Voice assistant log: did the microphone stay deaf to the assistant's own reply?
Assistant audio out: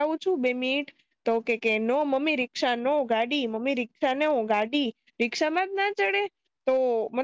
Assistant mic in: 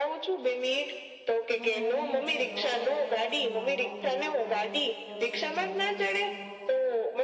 No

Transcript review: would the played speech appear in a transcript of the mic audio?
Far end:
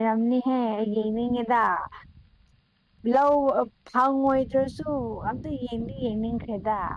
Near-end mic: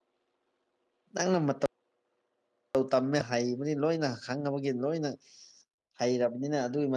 No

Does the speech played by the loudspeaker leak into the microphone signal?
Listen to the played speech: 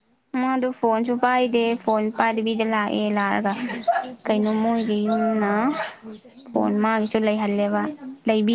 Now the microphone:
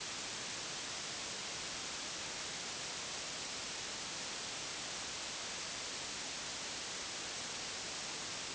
No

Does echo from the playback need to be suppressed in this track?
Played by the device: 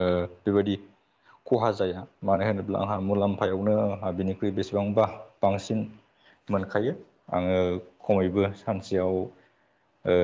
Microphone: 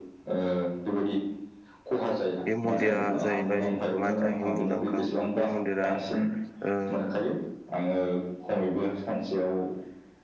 Yes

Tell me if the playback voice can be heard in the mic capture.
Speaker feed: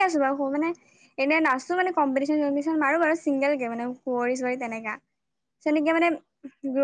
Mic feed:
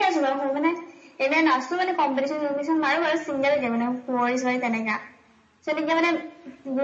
Yes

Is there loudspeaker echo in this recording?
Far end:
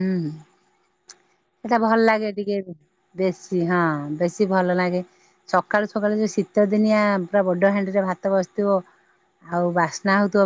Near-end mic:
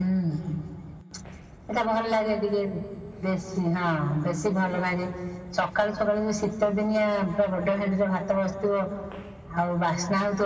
Yes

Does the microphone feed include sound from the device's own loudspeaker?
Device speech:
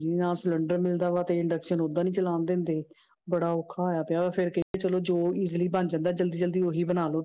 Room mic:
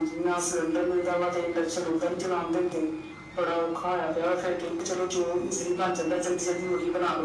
Yes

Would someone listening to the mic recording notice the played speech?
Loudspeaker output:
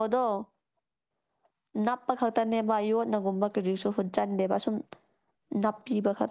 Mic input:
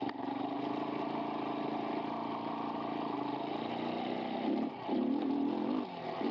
No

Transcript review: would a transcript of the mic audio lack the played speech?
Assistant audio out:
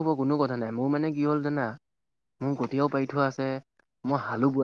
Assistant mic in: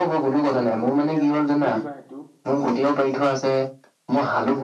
No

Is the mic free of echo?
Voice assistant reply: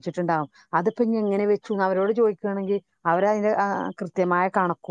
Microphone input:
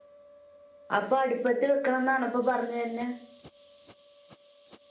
Yes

